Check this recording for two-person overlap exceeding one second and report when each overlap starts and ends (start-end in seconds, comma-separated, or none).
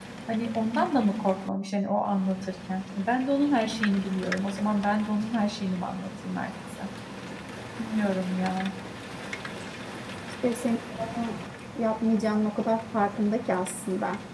none